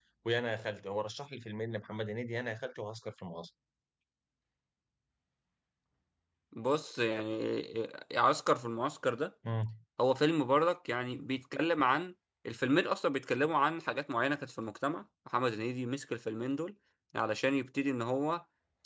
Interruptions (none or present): none